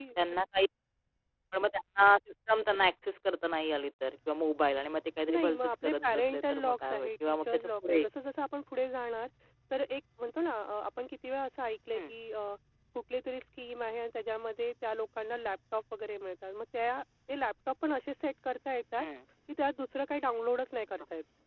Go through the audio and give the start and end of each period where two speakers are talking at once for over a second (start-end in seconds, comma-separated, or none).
5.3-8.0